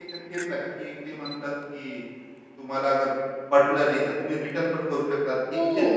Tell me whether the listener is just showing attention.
No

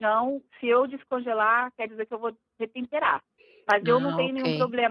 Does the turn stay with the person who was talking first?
Yes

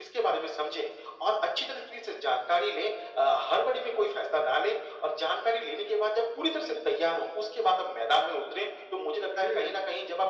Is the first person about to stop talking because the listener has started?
No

